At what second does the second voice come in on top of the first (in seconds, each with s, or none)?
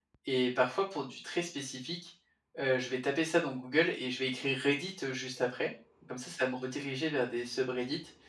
none